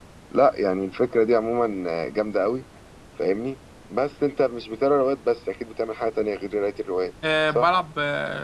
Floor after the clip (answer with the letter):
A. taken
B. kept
A